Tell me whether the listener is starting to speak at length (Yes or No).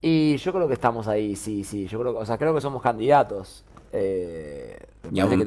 No